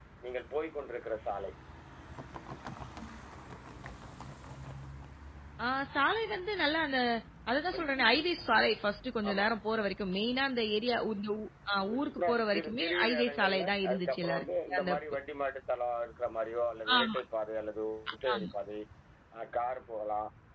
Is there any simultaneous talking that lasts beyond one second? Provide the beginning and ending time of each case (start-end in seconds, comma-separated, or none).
11.8-15.0